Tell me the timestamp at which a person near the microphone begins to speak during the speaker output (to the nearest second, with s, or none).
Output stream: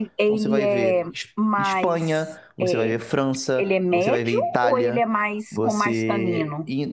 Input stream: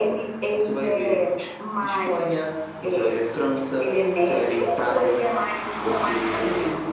none